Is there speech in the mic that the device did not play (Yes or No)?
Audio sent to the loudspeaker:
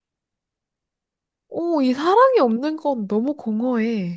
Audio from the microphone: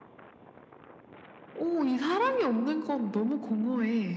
No